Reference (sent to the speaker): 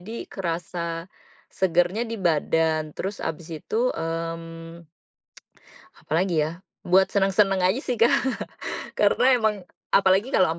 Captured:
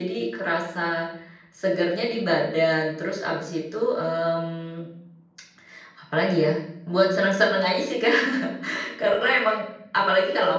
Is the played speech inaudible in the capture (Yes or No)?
No